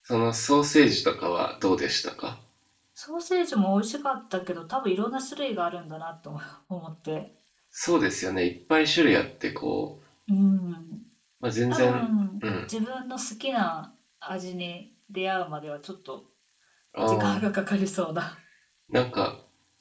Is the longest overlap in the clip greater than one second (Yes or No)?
No